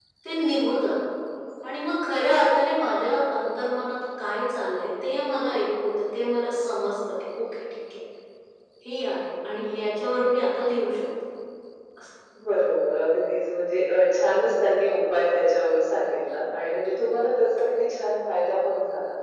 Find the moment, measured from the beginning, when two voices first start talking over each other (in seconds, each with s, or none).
none